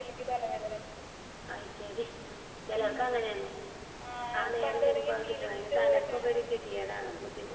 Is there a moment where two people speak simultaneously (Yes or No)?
Yes